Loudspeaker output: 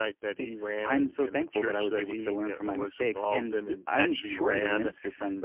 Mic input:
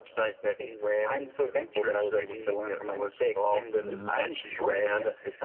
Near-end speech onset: 3.8 s

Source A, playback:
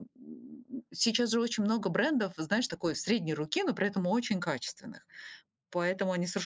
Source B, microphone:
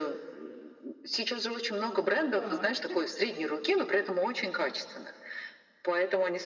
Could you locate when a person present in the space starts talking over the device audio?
2.3 s

